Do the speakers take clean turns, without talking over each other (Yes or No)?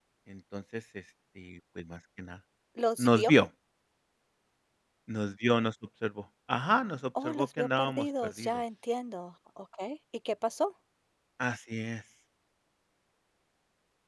No